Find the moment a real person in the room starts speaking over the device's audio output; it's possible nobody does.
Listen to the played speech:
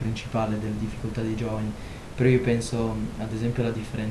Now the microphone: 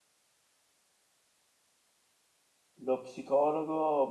2.8 s

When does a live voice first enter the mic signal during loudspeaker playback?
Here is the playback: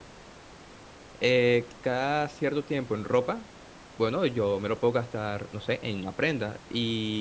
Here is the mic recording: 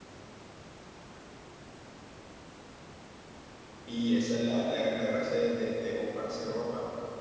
3.8 s

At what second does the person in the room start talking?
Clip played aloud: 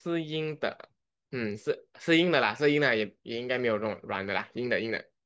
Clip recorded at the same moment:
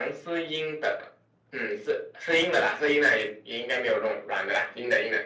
none

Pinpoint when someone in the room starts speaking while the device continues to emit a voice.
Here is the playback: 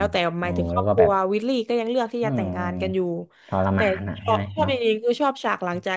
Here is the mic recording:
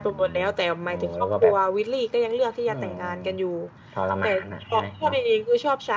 none

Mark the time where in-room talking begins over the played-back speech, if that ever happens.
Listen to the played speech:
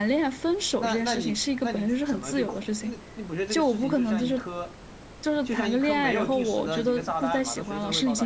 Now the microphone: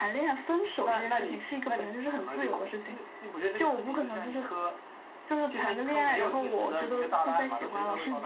none

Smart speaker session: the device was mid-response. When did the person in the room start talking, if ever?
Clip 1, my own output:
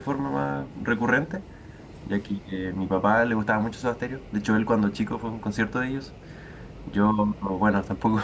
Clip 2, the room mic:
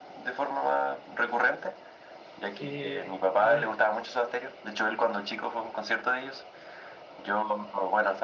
2.6 s

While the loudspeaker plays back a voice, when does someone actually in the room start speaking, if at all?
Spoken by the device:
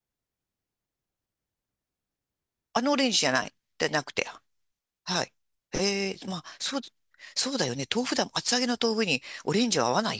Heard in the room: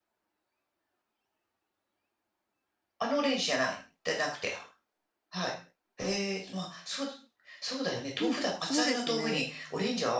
8.2 s

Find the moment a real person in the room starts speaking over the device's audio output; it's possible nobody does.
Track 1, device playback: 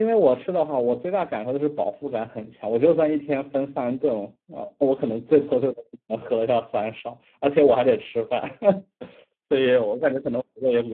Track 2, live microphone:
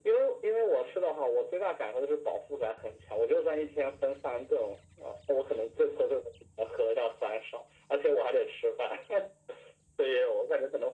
none

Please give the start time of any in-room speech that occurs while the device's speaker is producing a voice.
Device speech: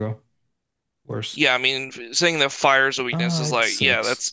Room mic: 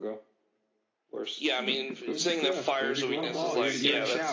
1.6 s

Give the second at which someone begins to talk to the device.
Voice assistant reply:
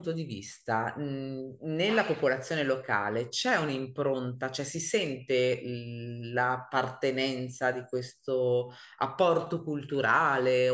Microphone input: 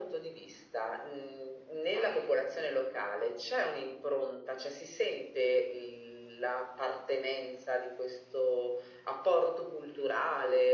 none

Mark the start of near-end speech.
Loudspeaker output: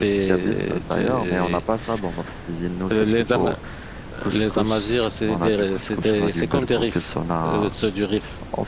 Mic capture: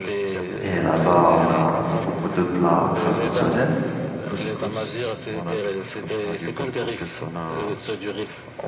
0.6 s

